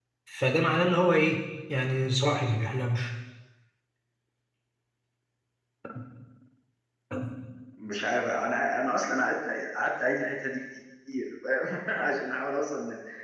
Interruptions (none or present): none